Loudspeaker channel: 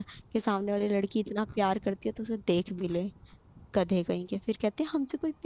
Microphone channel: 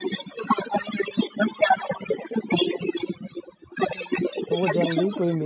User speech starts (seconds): 4.5 s

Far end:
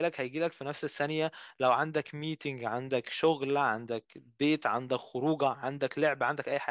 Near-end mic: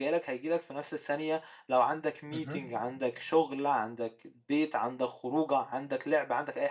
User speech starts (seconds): 2.3 s

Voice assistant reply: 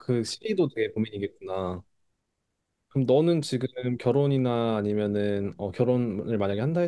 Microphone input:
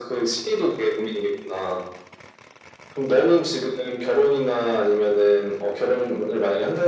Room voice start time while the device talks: none

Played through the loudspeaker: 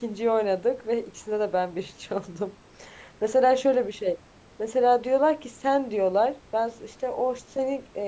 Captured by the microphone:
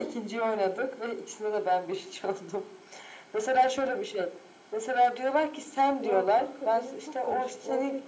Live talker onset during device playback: 6.0 s

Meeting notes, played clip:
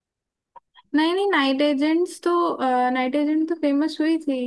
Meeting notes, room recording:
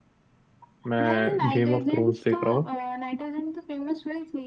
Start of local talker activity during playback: 0.9 s

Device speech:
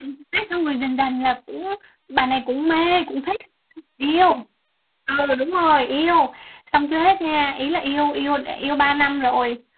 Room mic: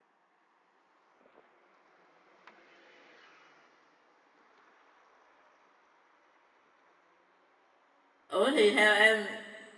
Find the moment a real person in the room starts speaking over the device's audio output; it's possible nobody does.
8.3 s

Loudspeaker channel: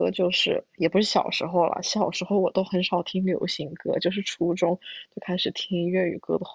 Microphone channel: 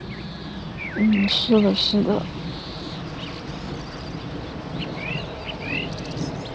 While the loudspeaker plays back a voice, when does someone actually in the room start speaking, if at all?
0.9 s

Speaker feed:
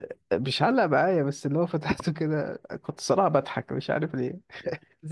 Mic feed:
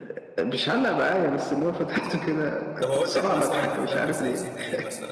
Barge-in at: 2.8 s

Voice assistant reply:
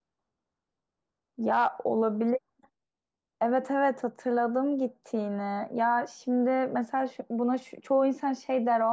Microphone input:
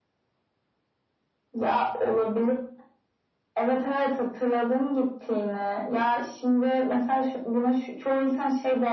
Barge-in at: none

